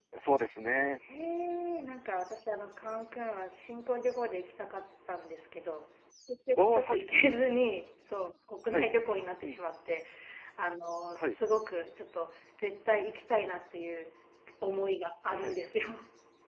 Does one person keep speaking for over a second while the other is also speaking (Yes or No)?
No